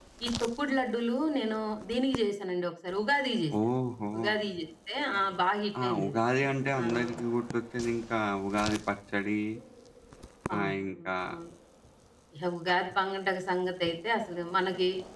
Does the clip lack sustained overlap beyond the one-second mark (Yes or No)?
Yes